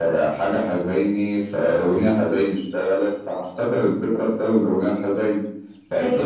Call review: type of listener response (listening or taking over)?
listening